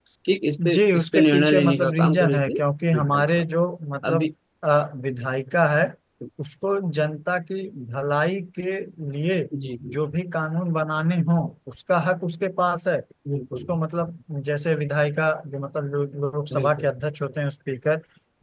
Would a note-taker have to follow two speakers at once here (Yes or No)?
Yes